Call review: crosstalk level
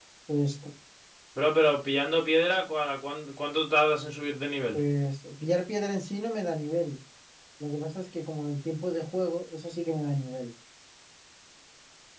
none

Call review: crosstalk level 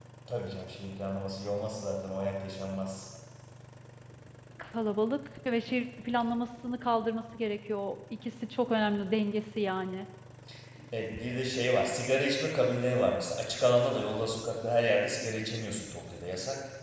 none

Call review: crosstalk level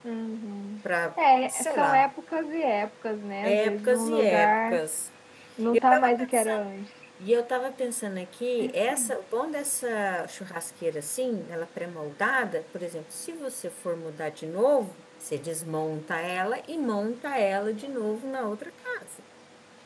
present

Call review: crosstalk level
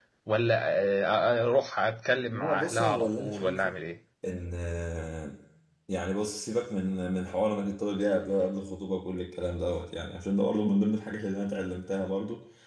present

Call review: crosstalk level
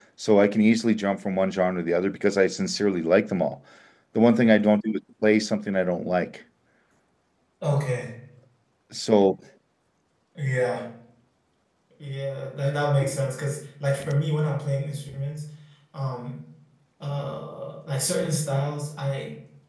none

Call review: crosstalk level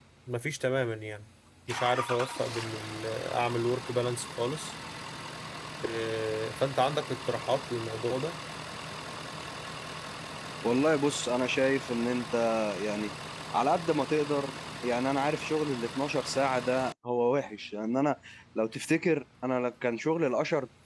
none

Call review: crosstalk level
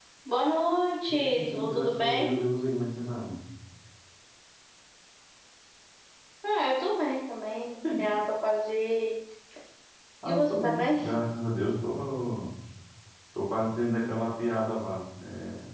present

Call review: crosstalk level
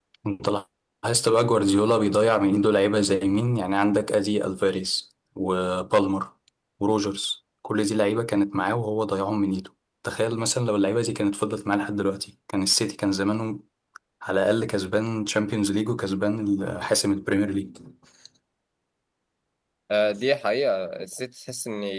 none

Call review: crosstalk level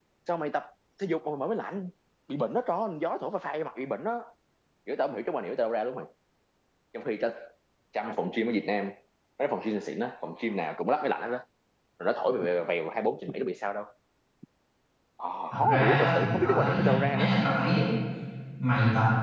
present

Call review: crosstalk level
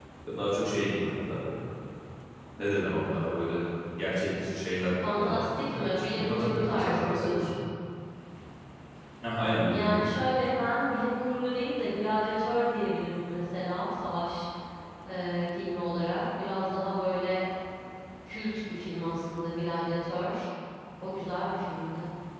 present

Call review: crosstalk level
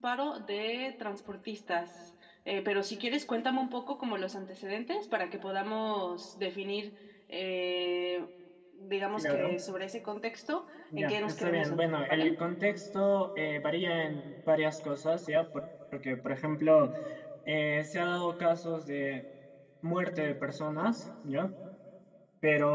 present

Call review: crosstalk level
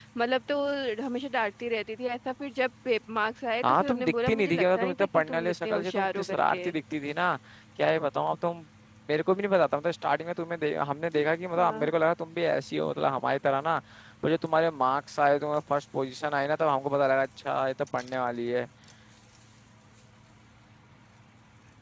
present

